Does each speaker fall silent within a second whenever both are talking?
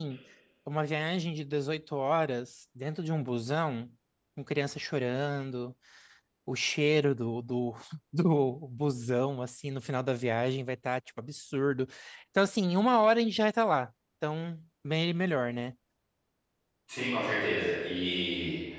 Yes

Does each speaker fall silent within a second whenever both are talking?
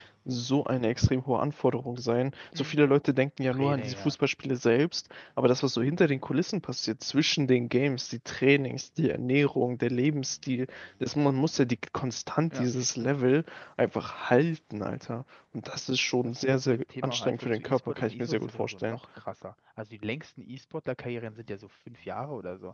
No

